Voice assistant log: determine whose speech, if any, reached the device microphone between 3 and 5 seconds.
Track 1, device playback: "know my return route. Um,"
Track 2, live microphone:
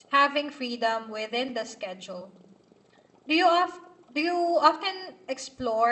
user only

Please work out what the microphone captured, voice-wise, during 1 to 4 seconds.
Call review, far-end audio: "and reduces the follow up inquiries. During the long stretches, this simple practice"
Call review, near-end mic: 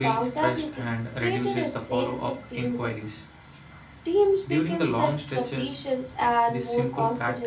both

